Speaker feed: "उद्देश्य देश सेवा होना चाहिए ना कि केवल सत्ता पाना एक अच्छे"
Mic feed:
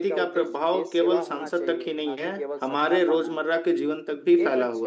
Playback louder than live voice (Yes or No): No